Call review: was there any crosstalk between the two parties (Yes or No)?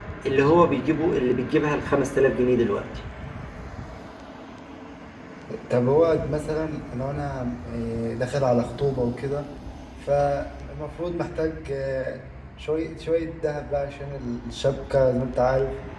No